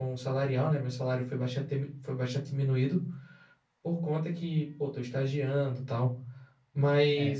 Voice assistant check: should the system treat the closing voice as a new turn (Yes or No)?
No